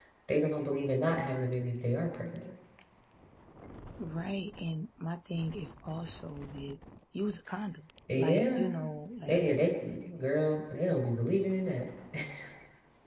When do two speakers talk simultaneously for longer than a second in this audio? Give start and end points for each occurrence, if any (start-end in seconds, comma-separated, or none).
none